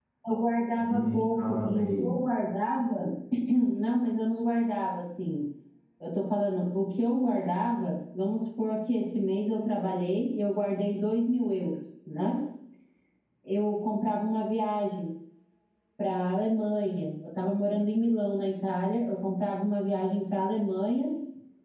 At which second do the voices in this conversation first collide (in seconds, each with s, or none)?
0.8 s